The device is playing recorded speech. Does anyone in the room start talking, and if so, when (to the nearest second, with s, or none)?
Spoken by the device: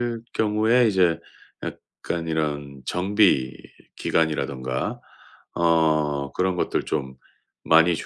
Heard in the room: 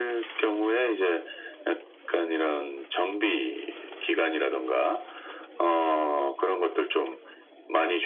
none